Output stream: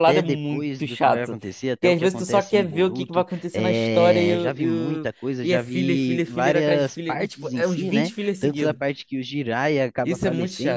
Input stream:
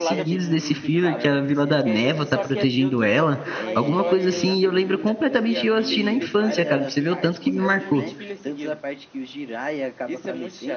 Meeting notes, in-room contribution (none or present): present